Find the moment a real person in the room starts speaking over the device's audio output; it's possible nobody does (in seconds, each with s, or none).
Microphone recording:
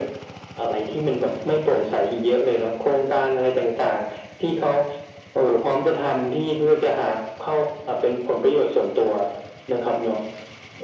none